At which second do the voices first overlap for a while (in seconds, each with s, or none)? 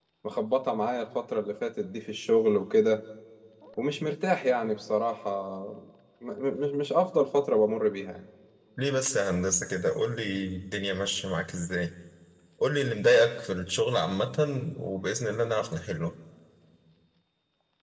none